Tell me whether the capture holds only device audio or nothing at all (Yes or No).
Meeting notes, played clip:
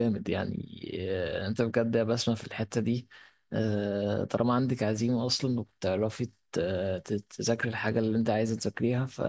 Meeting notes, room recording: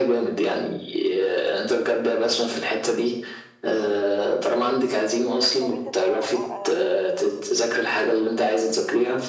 No